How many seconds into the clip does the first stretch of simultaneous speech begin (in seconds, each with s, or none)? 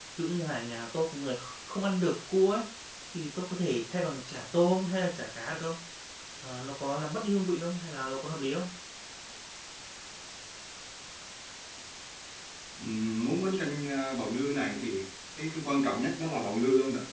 none